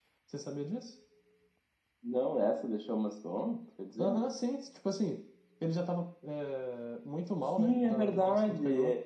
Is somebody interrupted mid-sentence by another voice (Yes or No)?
Yes